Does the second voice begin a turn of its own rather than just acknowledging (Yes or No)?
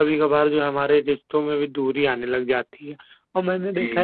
No